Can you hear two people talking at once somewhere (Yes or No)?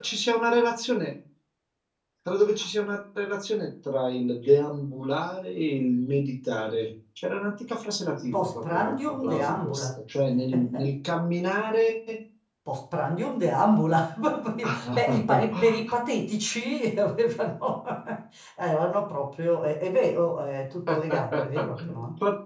Yes